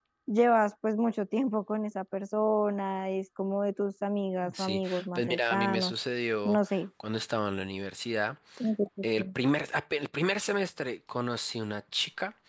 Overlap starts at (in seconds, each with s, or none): 4.6 s